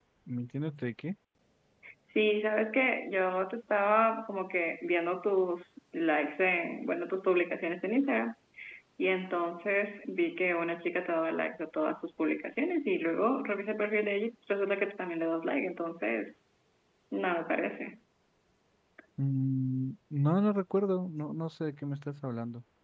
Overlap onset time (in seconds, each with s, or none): none